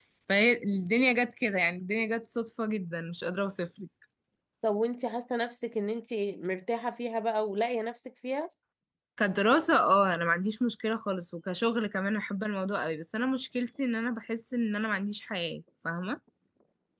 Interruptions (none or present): none